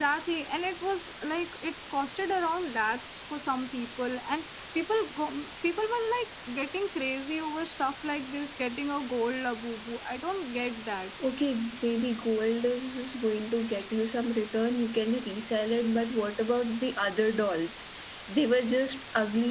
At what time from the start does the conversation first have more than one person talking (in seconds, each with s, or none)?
none